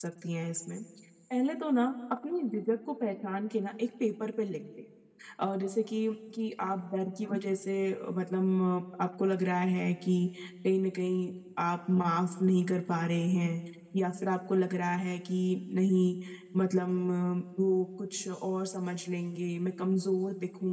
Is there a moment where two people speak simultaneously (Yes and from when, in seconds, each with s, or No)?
No